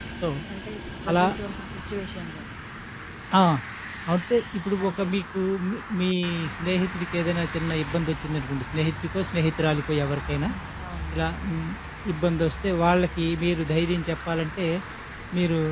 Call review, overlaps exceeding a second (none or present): none